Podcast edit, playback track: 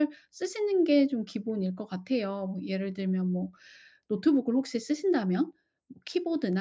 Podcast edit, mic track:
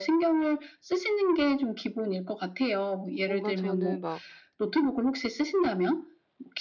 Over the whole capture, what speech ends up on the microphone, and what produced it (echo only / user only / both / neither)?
both